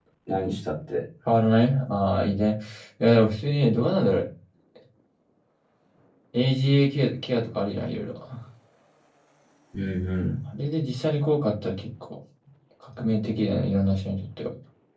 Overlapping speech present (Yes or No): No